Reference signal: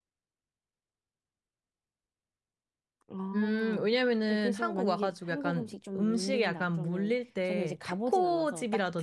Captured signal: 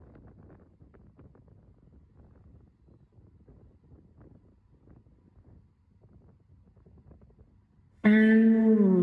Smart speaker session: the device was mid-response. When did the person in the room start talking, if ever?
8.0 s

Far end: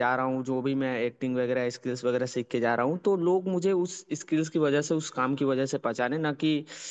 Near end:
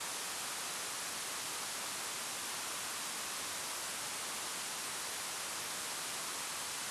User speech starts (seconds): none

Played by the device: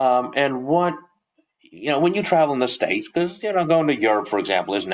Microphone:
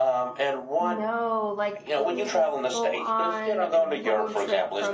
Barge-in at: 0.8 s

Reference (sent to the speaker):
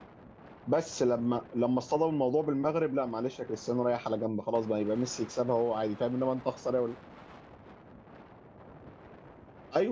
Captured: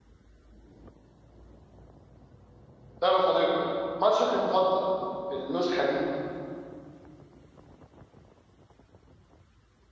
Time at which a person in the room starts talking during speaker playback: 3.0 s

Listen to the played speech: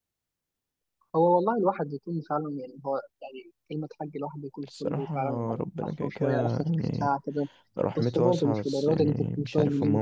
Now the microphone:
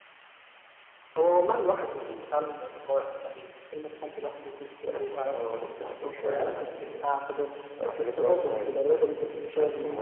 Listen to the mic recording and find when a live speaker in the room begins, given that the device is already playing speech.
none

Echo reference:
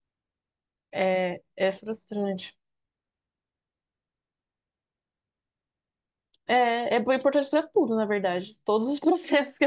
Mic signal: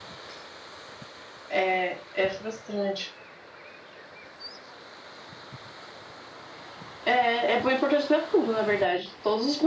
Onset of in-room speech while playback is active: none

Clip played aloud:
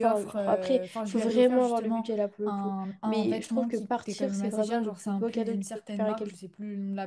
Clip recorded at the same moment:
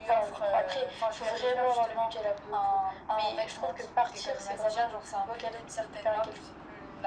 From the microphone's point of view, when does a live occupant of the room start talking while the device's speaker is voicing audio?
none

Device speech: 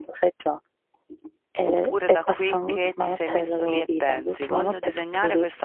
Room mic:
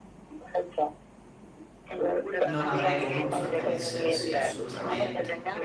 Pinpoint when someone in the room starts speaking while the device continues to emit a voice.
2.4 s

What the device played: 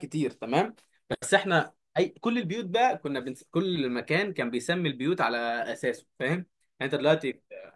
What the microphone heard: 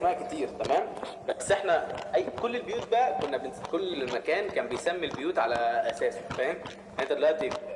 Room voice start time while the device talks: none

